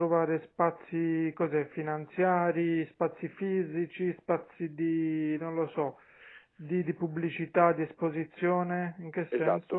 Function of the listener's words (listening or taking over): taking over